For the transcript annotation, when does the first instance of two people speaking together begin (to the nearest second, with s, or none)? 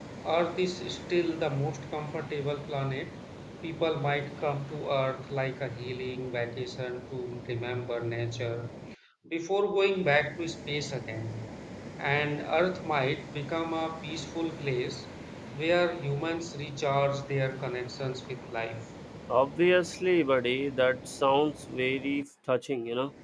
none